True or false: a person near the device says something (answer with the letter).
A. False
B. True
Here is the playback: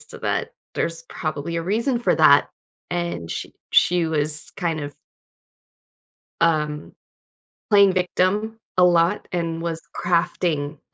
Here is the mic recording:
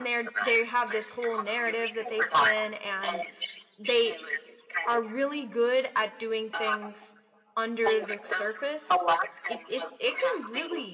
B